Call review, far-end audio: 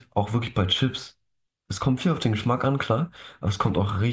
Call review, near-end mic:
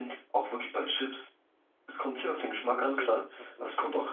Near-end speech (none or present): present